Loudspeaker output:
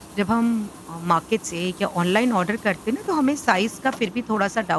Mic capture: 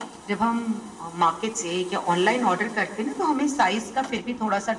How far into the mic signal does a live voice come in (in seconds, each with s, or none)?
none